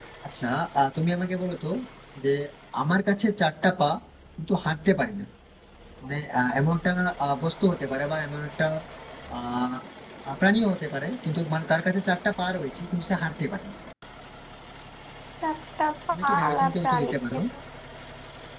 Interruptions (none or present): present